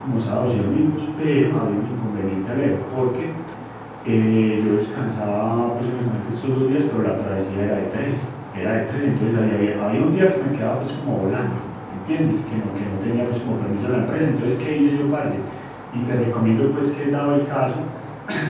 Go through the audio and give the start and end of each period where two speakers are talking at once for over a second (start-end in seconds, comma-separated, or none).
none